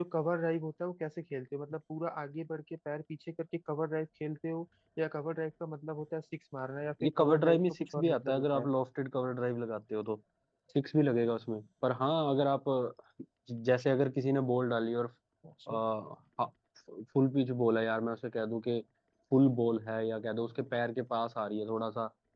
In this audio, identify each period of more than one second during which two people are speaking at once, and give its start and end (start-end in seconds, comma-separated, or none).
7.0-8.7